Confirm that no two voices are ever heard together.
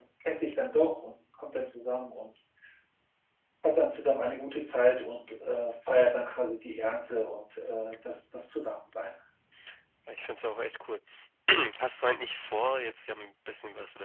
Yes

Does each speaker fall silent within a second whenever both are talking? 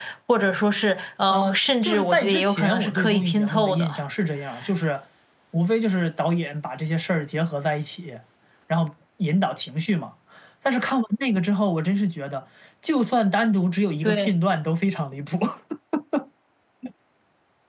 No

